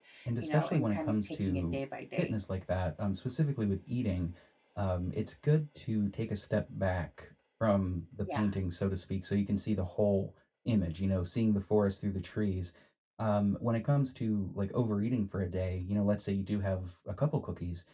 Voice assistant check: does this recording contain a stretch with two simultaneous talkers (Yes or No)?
Yes